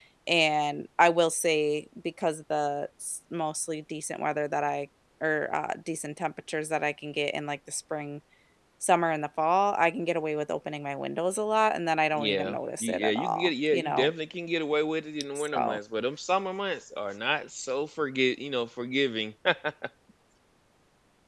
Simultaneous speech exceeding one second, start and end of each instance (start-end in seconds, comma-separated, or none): 12.1-14.1